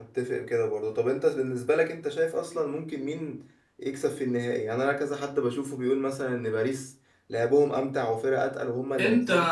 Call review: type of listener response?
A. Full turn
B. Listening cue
A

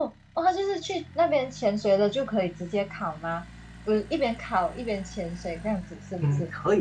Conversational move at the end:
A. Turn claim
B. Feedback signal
A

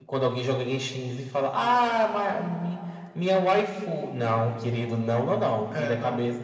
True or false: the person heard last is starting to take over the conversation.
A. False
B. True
A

